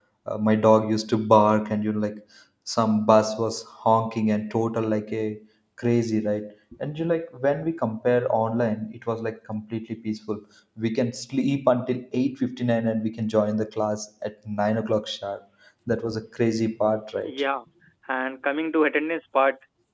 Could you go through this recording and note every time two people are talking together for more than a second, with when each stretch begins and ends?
none

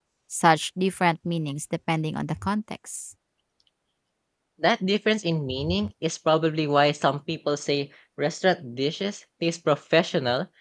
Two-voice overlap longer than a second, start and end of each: none

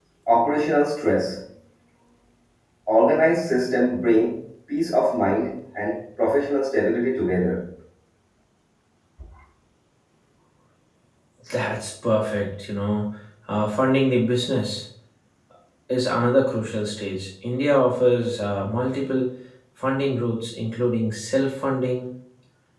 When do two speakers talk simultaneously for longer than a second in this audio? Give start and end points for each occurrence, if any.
none

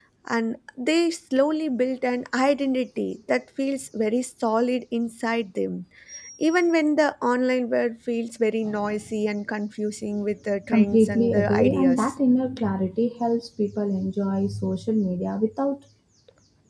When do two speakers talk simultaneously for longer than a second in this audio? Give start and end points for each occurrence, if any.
10.7-12.1

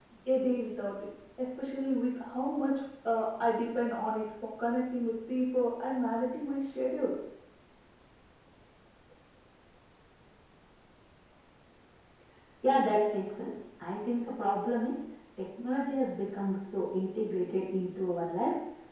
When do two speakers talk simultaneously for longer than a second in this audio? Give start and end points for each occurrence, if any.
none

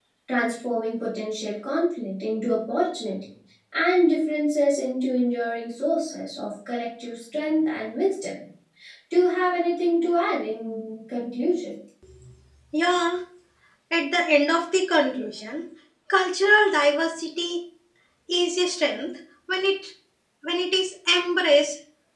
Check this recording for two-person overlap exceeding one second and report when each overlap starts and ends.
none

